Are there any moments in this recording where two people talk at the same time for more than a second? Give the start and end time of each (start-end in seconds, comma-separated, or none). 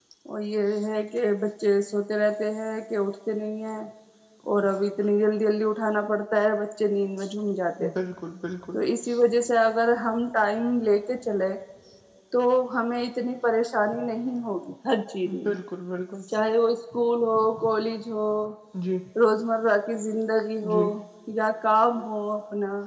none